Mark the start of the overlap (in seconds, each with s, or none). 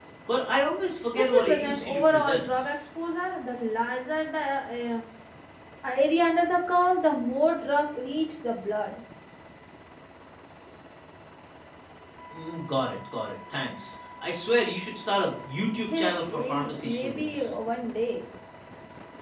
1.1 s